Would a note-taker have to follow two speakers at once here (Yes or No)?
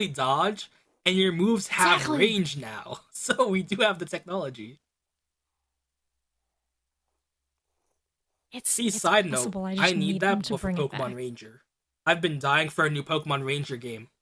Yes